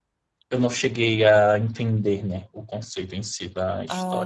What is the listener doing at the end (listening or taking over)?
taking over